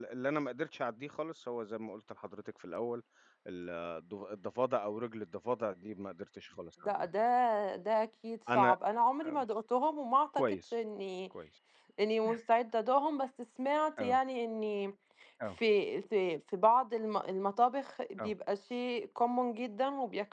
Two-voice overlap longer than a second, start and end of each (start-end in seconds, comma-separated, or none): none